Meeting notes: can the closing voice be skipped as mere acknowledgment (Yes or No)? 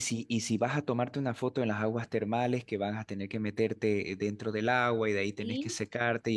Yes